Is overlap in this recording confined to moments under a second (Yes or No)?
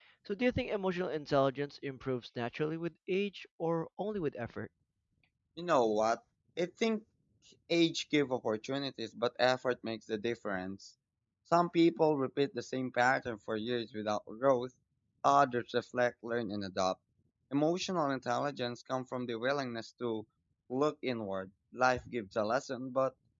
Yes